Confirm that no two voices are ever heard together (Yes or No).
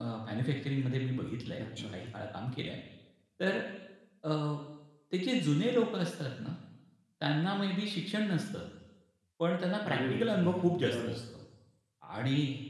No